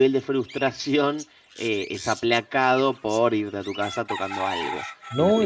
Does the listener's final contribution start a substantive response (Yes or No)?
Yes